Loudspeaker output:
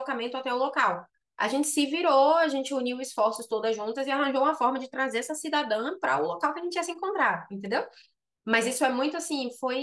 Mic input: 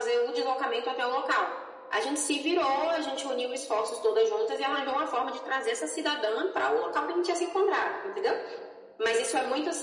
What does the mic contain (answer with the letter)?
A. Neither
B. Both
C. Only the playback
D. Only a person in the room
C